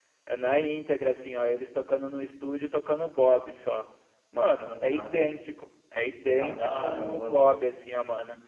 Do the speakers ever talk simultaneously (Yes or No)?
Yes